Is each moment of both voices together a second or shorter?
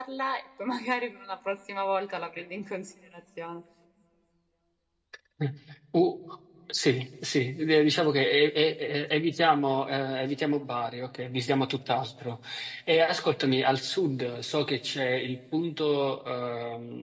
Yes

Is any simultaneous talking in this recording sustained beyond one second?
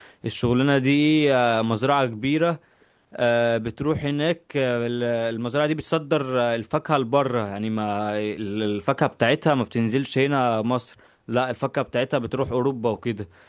No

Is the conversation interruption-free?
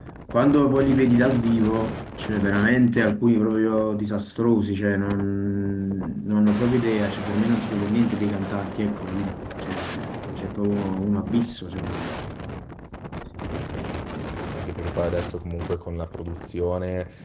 Yes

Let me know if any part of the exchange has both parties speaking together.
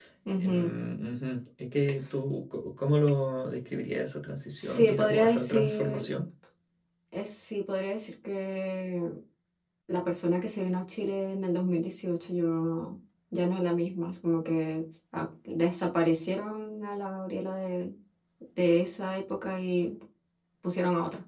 Yes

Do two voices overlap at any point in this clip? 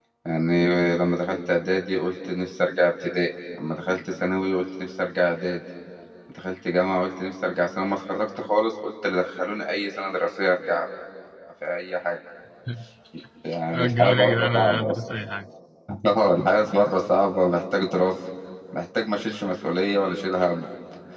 Yes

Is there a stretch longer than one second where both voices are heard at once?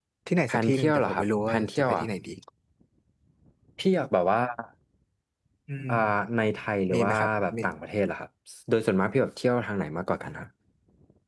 Yes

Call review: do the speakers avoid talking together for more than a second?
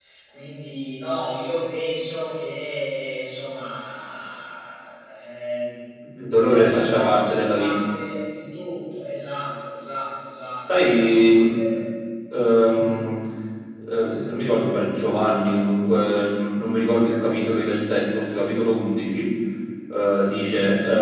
No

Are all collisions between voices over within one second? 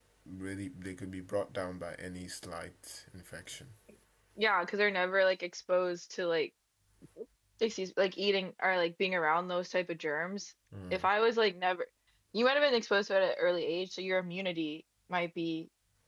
Yes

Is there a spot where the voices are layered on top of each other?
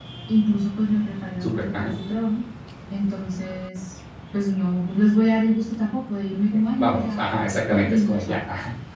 Yes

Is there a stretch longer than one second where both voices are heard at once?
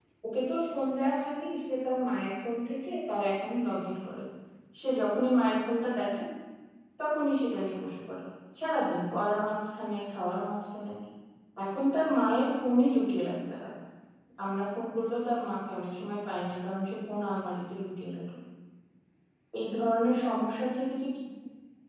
No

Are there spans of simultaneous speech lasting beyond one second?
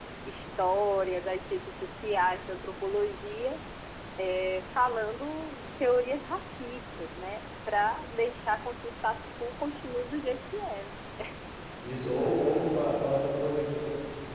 No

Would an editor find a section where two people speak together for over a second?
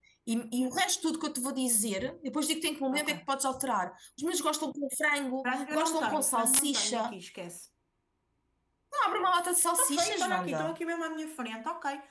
Yes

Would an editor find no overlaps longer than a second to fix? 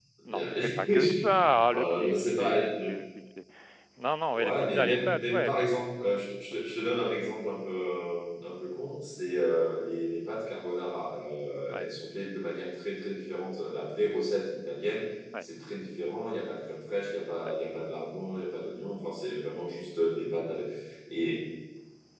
No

